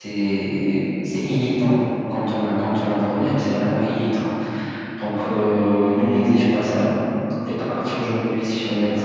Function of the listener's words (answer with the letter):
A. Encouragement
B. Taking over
B